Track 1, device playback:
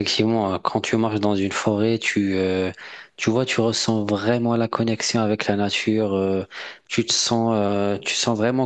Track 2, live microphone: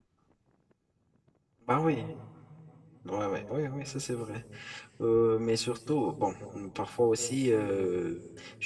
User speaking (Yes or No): Yes